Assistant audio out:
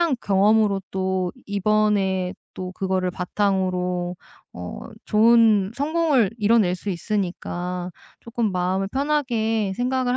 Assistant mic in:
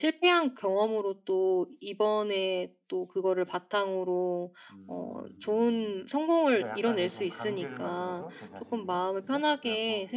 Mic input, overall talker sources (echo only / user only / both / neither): both